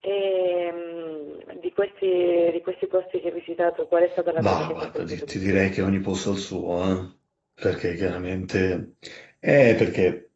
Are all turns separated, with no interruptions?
No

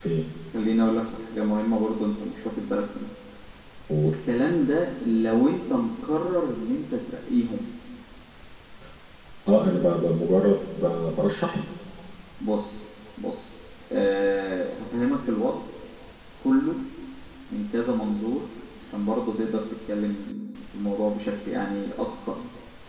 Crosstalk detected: No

